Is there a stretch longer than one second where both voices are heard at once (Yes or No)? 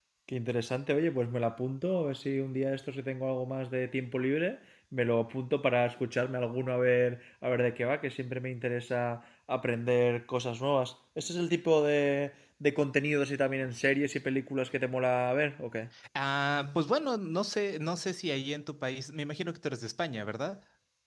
No